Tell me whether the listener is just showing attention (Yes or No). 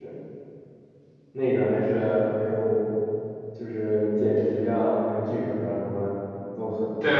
No